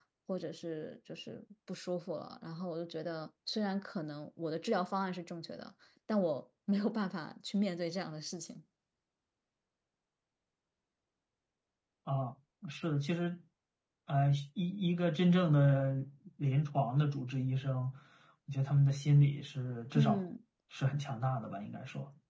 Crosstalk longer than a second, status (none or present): none